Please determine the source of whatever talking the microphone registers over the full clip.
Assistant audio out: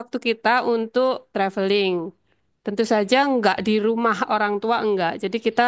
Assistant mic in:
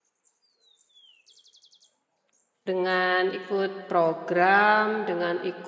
user only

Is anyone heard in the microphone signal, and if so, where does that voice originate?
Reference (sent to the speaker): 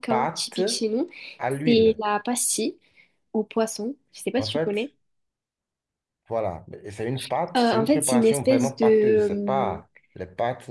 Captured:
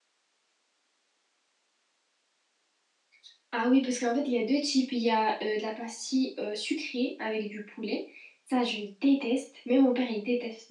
user only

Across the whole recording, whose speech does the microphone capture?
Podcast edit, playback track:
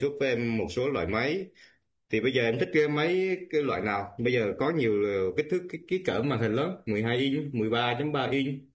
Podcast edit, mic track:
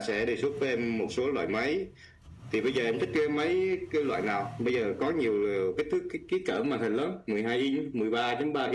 echo only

